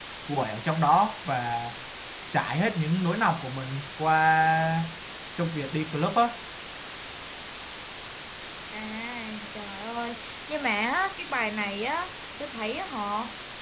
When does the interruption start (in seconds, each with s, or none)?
none